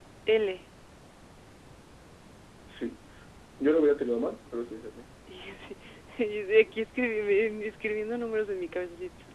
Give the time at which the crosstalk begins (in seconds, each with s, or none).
none